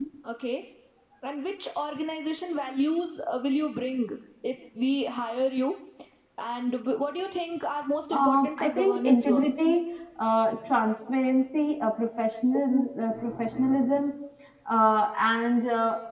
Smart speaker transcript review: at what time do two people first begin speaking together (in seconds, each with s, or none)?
8.1 s